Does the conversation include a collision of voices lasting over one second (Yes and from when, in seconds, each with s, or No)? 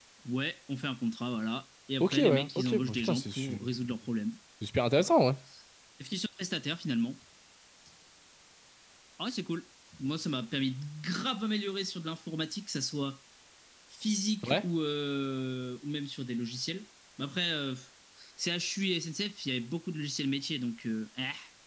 Yes, from 2.0 s